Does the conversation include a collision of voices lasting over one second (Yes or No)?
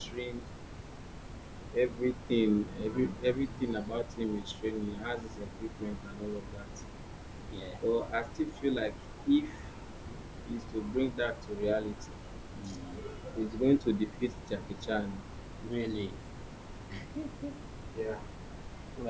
No